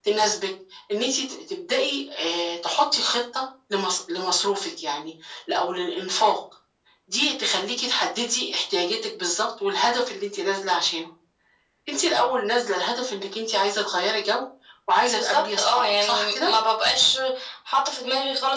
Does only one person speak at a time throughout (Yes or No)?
No